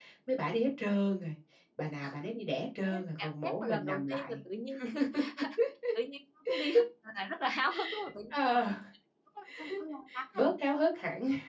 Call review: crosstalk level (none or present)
present